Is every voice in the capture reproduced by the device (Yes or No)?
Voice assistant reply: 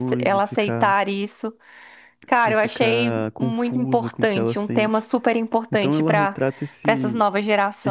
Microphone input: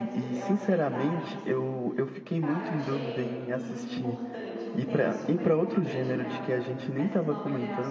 No